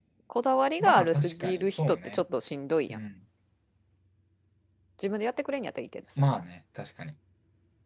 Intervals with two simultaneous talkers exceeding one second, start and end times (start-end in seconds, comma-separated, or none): 0.8-2.2